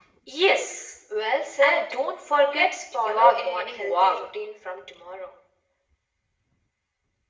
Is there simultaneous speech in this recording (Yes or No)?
Yes